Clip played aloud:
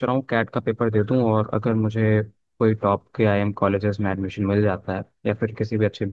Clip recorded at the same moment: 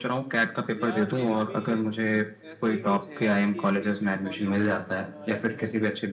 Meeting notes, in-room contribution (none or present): present